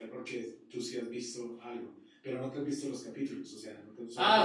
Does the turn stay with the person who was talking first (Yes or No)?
No